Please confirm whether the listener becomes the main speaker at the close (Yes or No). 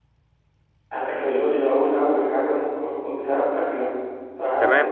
Yes